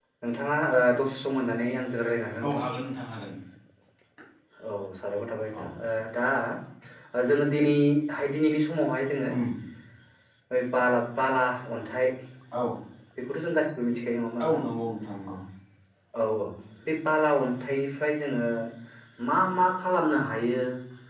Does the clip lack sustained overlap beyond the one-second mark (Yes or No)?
Yes